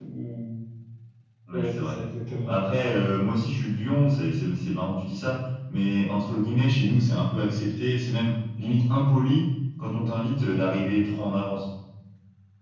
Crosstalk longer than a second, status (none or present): none